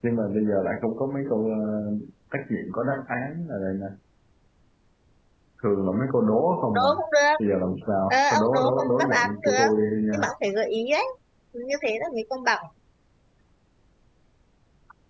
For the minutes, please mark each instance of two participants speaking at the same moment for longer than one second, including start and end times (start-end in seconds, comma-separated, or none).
8.1-9.7